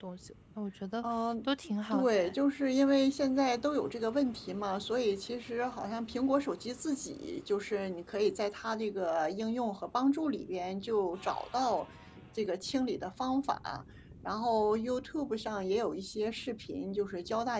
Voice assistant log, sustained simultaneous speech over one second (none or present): none